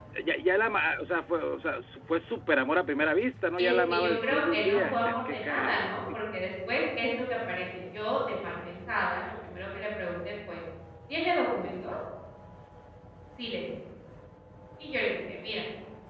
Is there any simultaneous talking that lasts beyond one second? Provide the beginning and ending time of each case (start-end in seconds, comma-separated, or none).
3.6-5.7